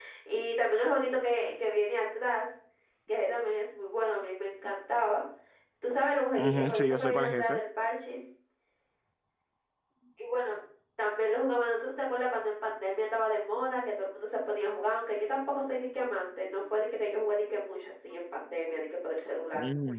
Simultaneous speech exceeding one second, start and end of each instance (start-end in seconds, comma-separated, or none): 6.4-7.6